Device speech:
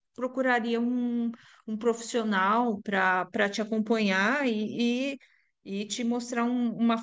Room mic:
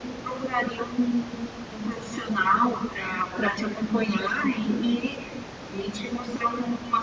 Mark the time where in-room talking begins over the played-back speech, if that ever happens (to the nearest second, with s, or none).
none